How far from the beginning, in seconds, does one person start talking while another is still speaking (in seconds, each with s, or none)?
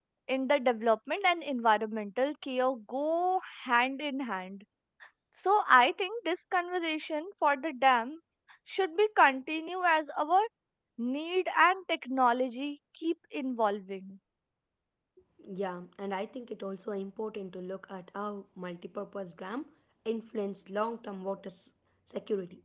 none